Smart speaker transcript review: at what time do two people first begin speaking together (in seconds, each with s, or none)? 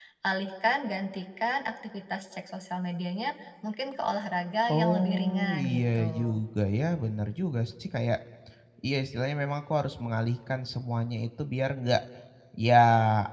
4.7 s